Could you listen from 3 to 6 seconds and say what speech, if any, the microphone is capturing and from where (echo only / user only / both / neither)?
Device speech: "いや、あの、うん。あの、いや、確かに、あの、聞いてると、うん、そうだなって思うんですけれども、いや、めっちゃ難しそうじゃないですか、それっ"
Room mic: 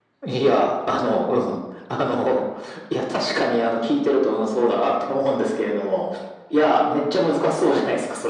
echo only